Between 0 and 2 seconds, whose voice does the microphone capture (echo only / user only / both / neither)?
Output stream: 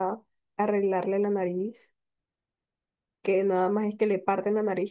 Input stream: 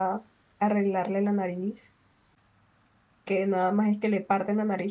echo only